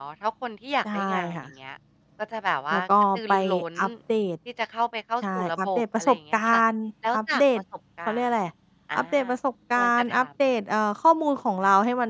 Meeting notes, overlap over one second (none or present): present